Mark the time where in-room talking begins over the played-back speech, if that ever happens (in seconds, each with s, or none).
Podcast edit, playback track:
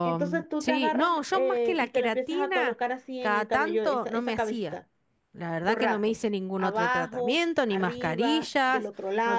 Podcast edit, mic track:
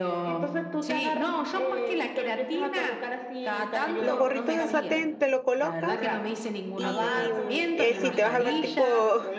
4.0 s